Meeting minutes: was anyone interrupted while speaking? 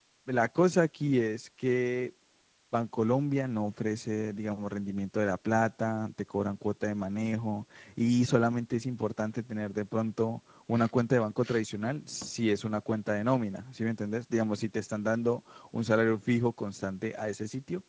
No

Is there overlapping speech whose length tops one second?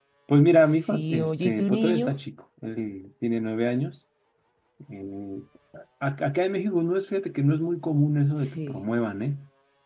Yes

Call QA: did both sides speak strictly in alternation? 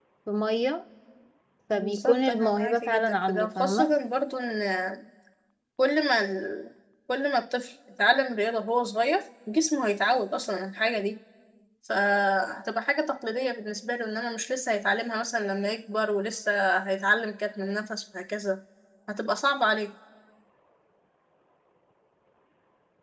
No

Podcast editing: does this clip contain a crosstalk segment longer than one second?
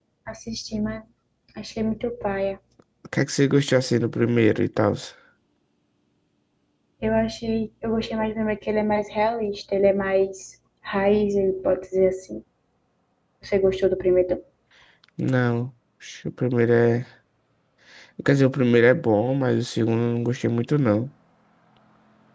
No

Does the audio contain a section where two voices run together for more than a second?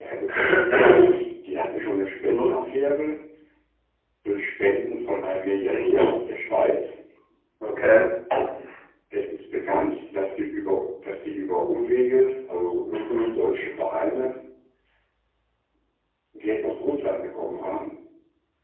No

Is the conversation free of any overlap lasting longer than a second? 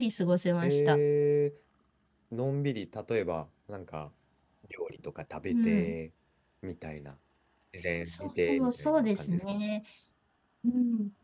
No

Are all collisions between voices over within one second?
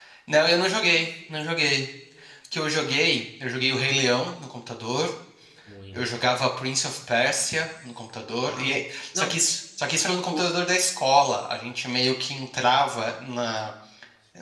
Yes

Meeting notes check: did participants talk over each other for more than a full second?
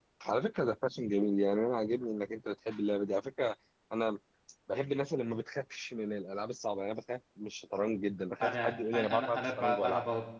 Yes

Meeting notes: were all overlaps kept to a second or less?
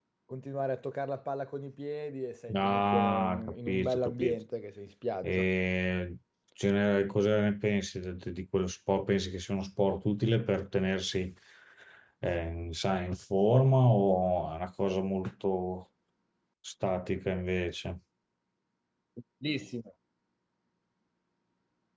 No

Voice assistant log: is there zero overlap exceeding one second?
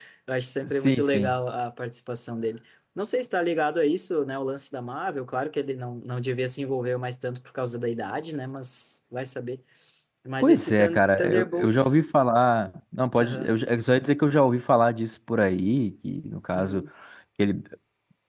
No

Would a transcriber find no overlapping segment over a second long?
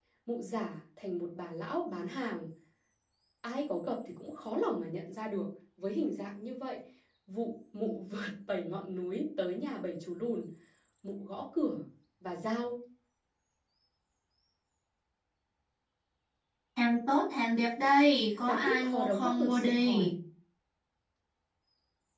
No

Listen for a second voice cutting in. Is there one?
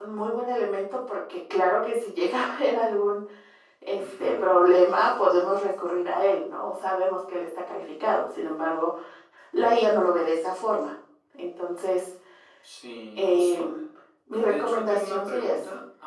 Yes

